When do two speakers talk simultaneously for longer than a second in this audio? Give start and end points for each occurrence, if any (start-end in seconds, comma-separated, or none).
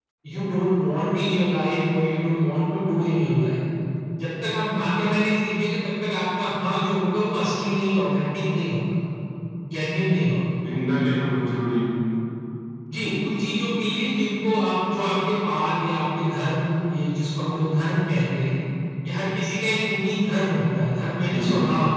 none